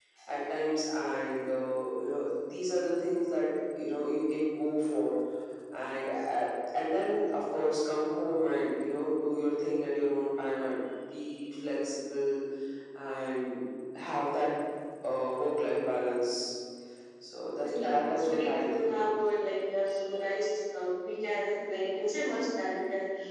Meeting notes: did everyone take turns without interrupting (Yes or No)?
No